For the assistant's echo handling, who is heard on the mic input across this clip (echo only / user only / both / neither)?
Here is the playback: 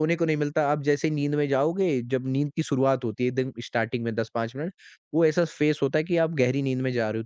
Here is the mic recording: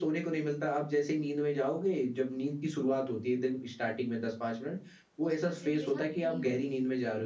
both